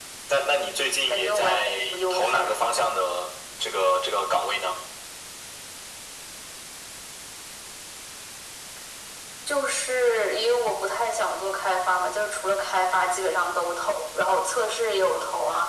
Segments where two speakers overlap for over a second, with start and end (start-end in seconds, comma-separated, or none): 1.1-2.6